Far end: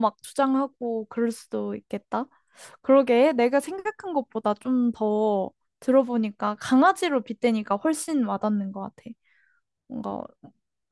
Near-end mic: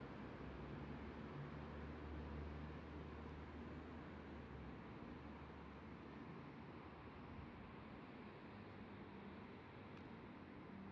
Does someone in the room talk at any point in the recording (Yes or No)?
No